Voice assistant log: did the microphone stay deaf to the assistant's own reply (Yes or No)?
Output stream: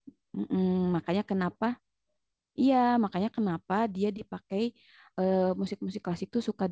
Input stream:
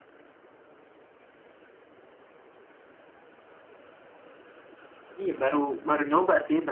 Yes